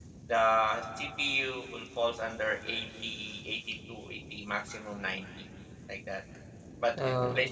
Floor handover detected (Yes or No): No